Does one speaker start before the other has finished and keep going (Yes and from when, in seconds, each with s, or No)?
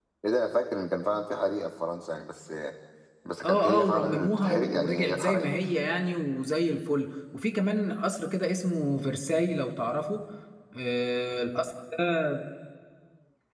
Yes, from 3.4 s